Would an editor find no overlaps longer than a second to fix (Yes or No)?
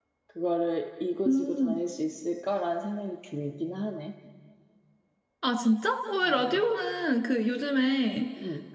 Yes